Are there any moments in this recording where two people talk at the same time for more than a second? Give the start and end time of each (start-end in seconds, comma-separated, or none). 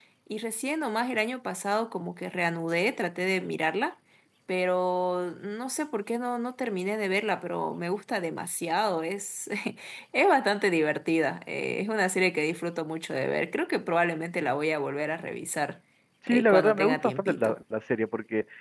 16.3-17.6